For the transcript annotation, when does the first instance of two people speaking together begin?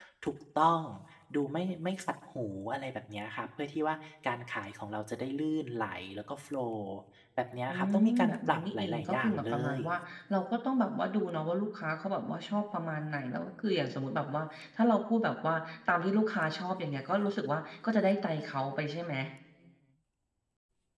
7.7 s

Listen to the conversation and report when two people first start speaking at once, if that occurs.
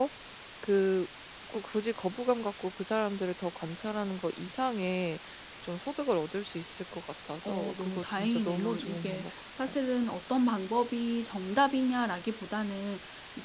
7.4 s

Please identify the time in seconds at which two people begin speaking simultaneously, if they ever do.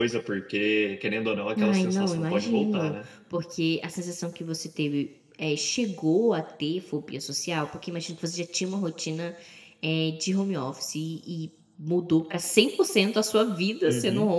1.6 s

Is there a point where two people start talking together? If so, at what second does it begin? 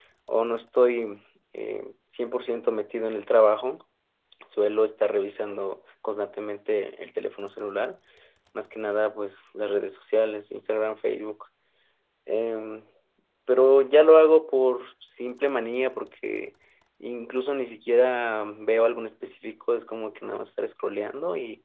none

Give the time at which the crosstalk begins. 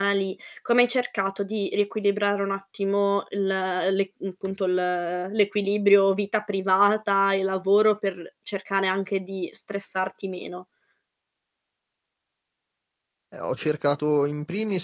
none

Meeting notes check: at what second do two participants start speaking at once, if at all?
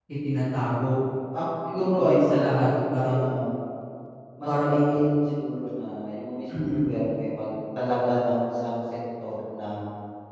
2.0 s

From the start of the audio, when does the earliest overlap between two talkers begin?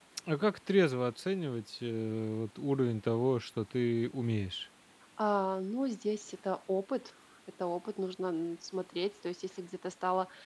none

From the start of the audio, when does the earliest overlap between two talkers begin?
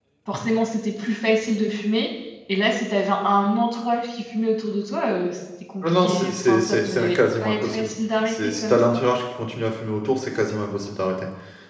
5.8 s

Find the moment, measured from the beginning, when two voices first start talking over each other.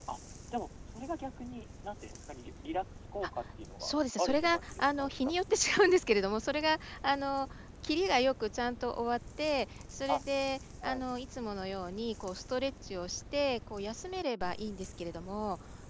3.8 s

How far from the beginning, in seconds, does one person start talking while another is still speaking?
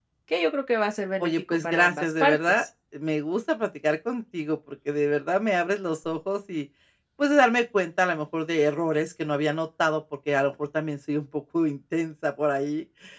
1.2 s

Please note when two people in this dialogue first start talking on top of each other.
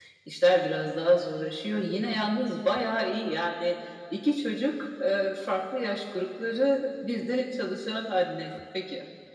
none

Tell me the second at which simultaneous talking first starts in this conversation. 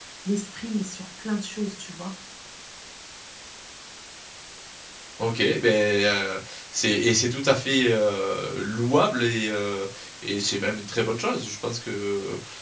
none

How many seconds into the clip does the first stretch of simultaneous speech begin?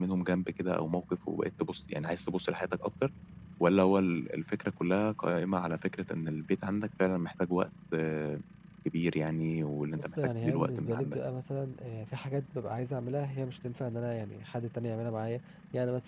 10.0 s

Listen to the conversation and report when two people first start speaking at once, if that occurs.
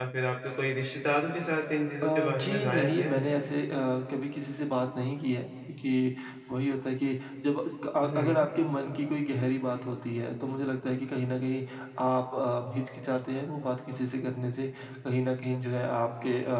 2.0 s

